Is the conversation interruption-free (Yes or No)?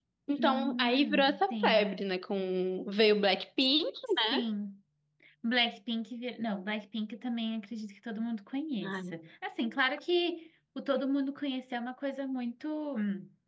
No